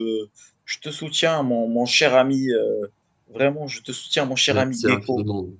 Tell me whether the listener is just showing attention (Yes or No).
No